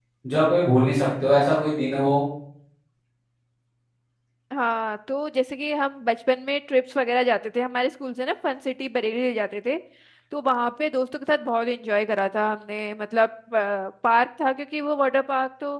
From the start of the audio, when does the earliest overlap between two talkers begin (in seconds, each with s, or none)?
none